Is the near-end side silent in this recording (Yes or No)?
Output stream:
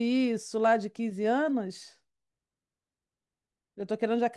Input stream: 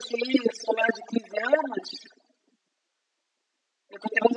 Yes